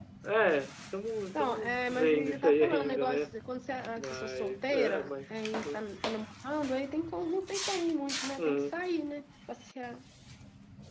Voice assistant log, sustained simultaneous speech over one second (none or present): present